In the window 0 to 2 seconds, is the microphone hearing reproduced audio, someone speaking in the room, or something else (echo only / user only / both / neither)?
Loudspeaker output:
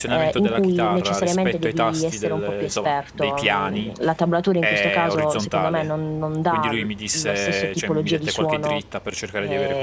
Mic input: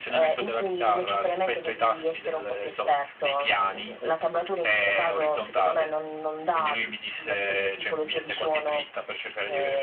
echo only